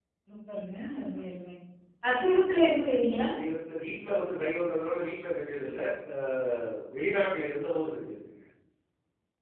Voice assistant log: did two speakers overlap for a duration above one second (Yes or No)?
No